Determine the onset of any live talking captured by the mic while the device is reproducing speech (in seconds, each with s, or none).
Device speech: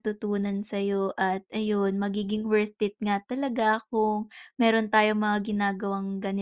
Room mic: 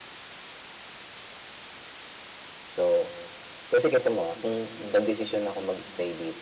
2.7 s